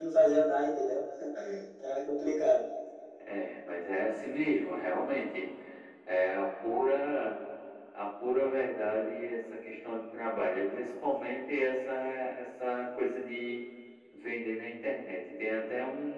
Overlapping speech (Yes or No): No